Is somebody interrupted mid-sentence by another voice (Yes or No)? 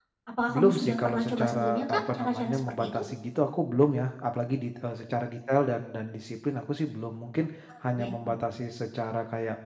Yes